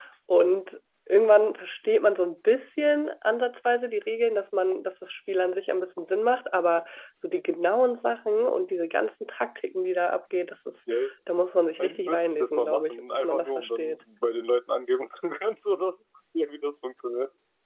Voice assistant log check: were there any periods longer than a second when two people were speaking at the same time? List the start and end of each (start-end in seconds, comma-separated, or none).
11.8-14.0